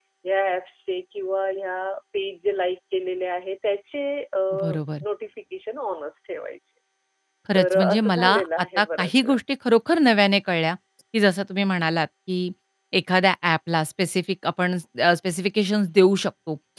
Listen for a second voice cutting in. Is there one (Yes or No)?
Yes